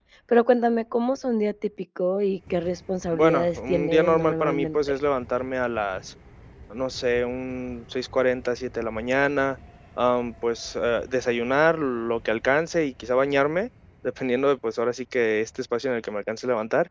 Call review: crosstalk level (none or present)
present